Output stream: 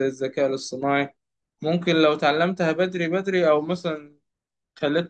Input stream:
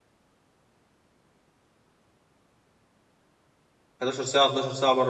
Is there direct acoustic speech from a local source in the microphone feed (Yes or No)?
Yes